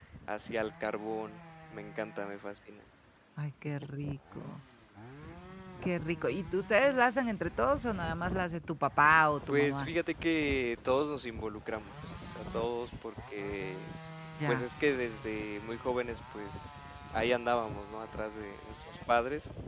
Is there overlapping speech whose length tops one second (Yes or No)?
No